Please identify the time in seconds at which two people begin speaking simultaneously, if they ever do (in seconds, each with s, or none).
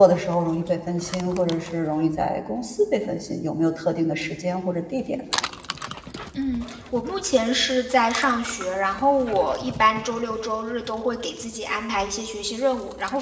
none